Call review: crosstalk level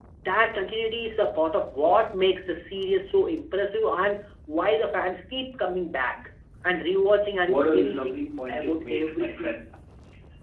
present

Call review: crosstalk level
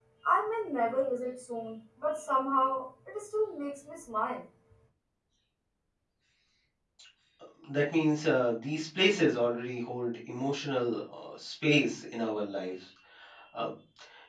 none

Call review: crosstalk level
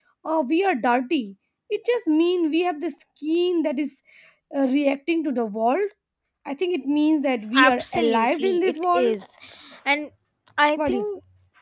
present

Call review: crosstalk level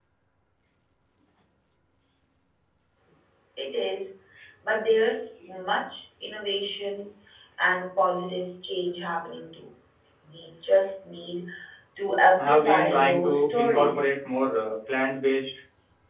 present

